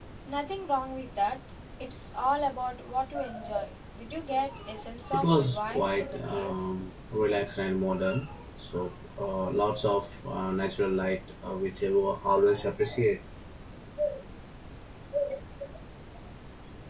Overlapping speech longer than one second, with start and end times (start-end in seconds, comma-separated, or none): 5.1-6.5